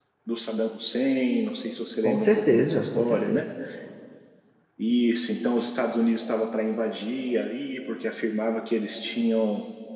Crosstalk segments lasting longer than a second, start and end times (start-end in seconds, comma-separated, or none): 2.0-3.5